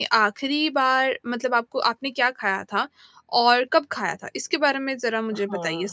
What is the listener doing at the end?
taking over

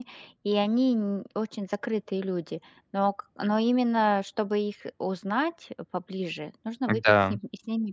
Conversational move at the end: listening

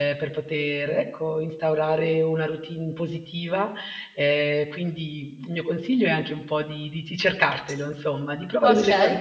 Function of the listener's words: listening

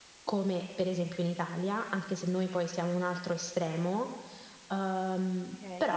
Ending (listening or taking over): taking over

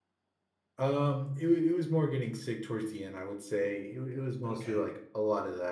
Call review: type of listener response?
listening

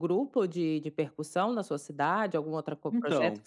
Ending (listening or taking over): listening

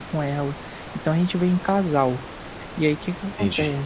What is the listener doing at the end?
listening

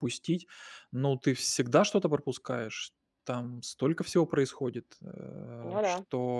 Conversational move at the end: listening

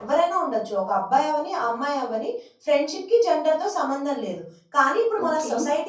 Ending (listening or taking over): listening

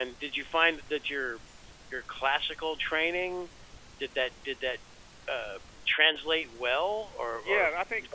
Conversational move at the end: taking over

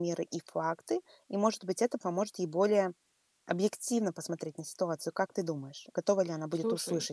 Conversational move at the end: taking over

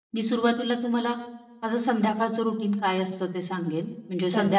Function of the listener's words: listening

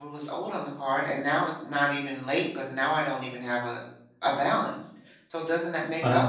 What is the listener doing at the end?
taking over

